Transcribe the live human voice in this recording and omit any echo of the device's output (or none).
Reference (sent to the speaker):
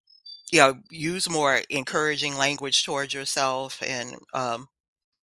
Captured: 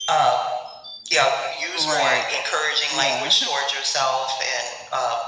right yeah